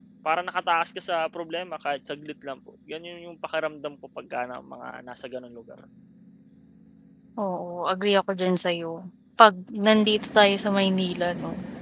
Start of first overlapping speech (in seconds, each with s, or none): none